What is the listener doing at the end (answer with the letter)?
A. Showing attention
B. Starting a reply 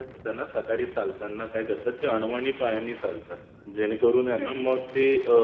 A